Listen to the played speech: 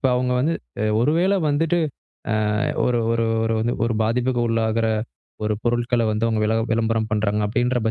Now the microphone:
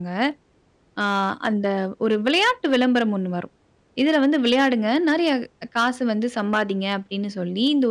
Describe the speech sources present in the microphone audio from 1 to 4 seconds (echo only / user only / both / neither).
user only